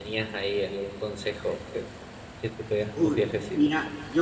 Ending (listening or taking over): taking over